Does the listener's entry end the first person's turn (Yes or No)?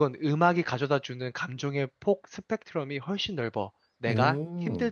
No